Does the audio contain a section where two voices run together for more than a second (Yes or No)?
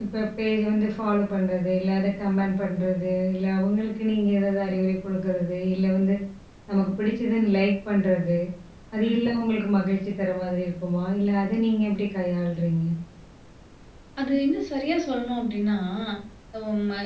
No